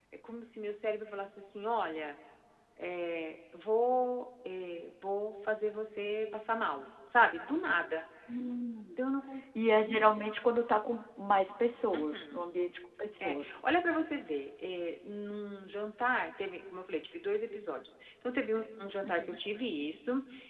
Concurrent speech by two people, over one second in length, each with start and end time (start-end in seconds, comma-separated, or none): none